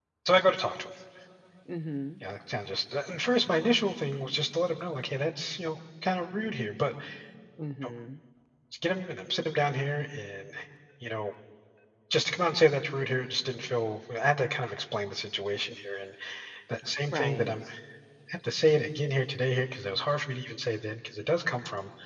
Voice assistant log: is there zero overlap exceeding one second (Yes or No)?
Yes